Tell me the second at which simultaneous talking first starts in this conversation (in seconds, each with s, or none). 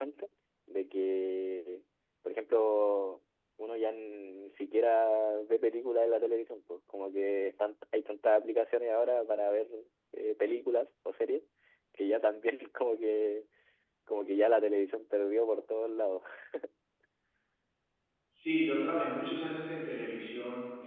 none